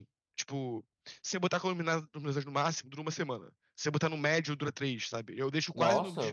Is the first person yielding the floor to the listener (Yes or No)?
No